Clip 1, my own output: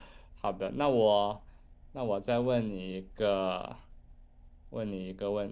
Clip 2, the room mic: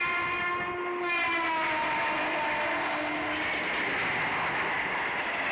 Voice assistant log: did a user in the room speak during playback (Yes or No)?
No